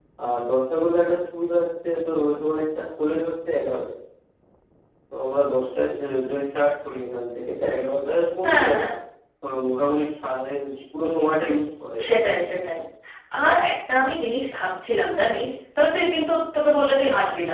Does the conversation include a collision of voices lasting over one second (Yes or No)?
No